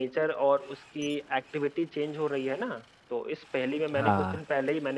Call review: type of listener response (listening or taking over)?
listening